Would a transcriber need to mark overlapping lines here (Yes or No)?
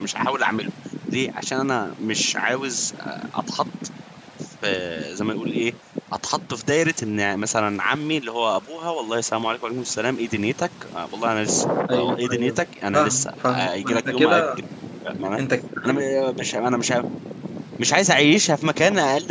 Yes